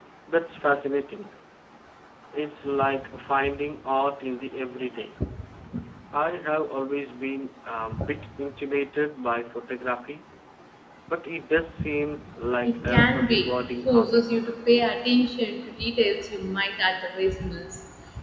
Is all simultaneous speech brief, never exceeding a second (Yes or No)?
No